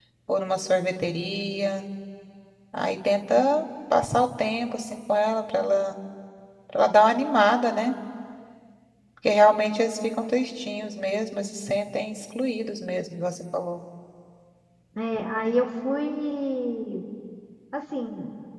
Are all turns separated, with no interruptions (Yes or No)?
Yes